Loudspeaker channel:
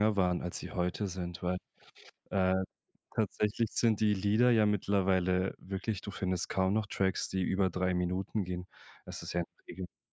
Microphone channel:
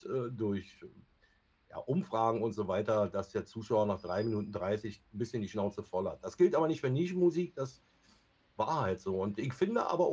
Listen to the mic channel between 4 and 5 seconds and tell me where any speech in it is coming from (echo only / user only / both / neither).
user only